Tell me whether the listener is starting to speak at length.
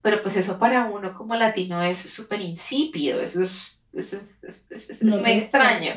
Yes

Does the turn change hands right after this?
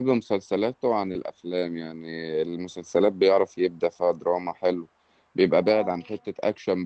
No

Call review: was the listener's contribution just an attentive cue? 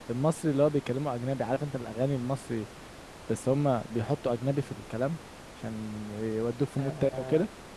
No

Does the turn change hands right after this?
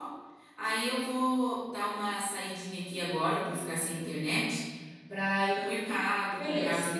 No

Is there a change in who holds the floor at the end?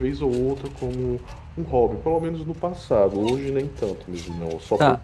Yes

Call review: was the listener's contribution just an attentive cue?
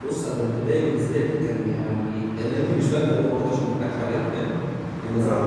Yes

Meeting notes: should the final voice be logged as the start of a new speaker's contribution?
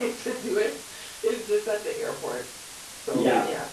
Yes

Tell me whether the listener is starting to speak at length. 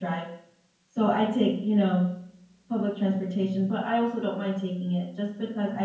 No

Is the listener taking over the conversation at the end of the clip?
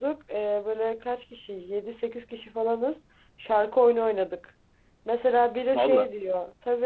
No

